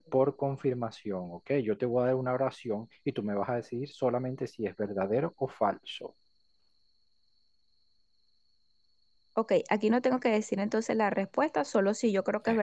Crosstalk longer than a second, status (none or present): none